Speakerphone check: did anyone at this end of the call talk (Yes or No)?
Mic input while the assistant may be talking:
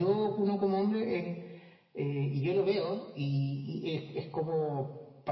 No